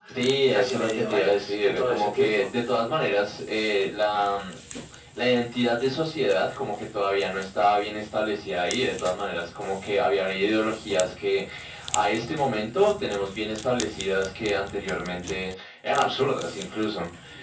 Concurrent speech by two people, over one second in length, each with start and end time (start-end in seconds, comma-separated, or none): 0.5-2.4